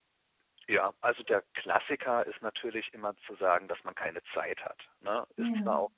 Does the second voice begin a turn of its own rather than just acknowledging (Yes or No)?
No